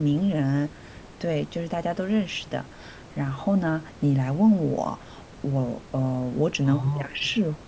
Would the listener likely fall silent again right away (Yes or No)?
Yes